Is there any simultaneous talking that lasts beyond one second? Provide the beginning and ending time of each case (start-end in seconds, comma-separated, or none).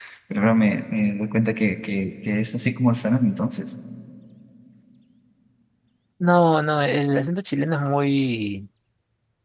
none